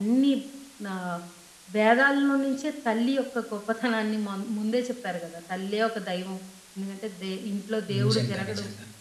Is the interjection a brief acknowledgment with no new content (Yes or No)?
Yes